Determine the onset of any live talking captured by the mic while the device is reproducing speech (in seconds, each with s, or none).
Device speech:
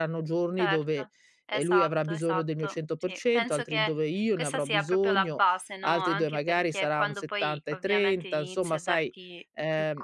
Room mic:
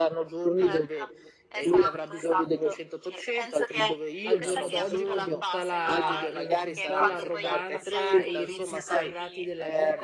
4.2 s